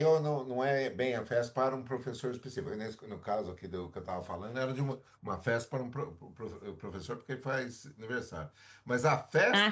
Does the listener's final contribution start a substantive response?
No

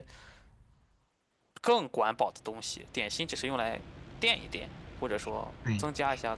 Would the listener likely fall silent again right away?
No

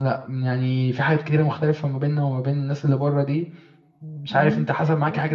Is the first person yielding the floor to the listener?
Yes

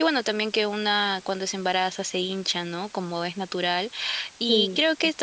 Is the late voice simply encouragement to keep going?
Yes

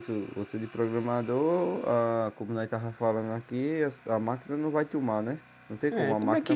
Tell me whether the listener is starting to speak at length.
Yes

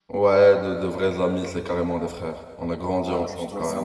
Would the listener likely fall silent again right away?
No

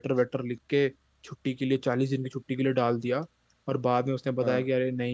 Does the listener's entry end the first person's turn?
No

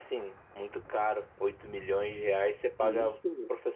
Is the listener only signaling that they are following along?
Yes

